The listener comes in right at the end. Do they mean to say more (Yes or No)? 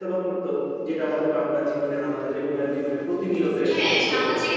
Yes